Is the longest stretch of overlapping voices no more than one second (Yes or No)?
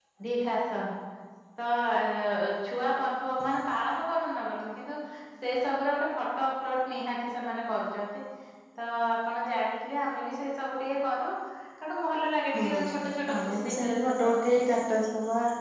No